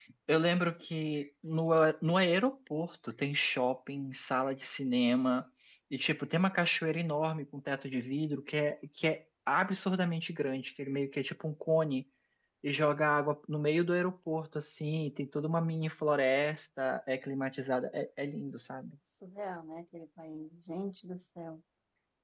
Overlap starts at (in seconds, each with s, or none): none